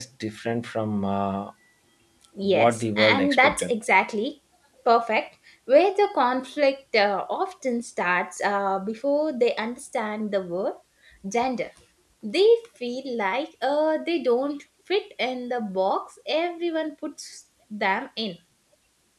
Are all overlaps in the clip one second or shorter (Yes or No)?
No